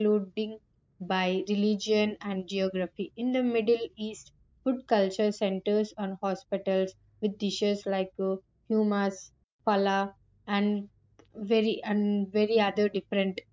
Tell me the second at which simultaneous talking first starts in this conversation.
none

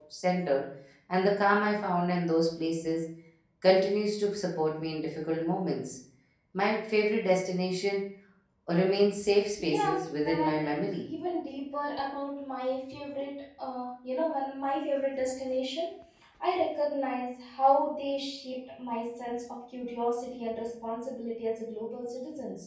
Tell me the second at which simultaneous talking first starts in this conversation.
9.6 s

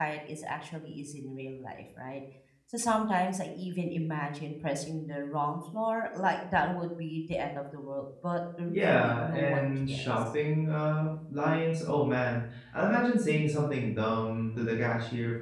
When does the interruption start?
8.7 s

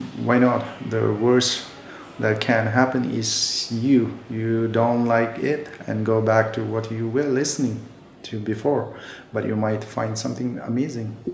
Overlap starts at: none

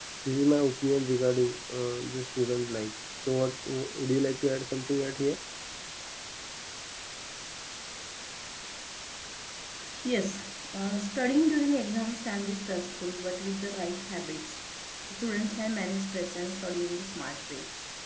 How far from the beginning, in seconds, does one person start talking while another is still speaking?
none

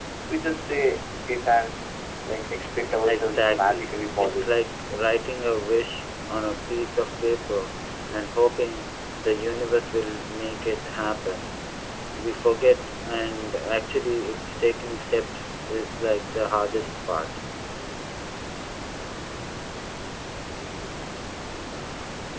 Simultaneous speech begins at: 3.0 s

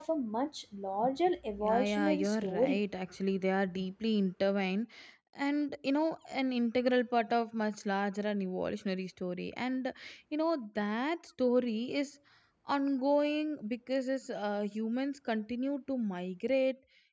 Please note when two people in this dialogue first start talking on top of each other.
1.6 s

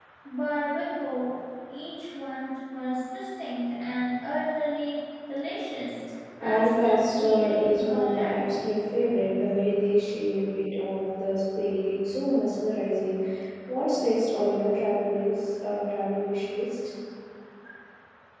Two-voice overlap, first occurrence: 6.4 s

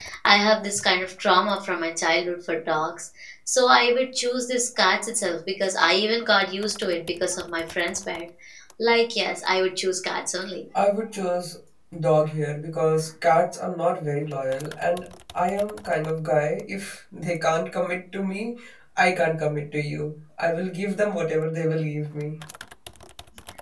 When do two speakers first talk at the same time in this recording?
none

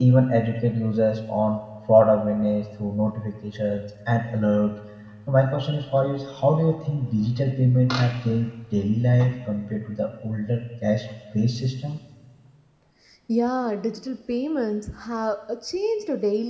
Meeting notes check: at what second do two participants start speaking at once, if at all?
none

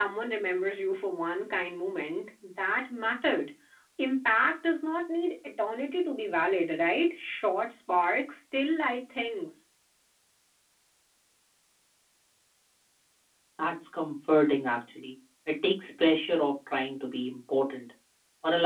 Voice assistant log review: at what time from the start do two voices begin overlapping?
none

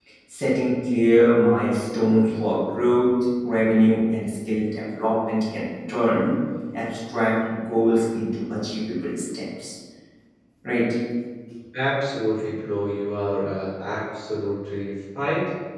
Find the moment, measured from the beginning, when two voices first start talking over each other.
none

